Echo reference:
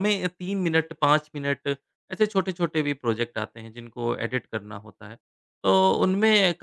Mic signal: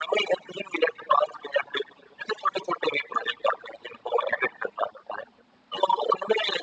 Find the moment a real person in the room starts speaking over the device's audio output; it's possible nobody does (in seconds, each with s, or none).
none